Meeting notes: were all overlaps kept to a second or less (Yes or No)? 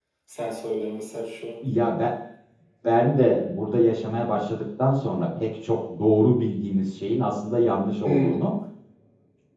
Yes